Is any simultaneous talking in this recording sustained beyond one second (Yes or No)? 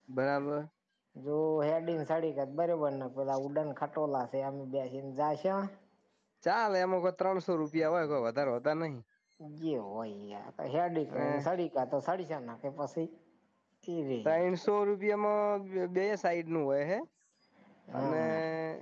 No